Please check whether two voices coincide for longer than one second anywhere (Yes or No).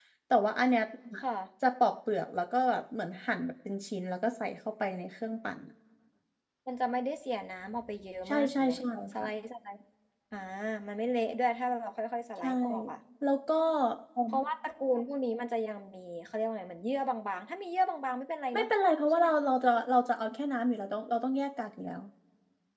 No